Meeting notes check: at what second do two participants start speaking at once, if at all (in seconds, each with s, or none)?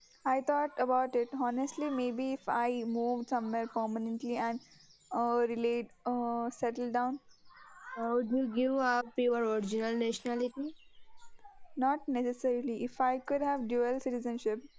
none